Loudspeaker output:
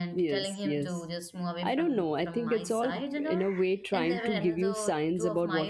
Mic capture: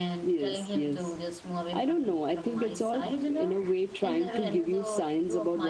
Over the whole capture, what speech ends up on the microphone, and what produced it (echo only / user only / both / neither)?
echo only